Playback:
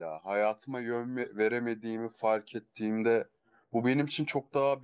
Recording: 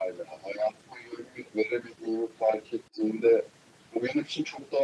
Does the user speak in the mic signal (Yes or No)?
No